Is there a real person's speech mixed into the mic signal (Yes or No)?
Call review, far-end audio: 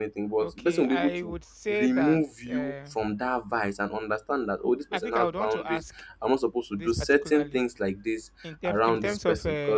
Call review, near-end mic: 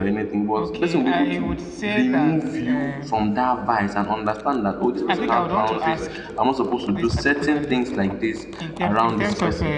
Yes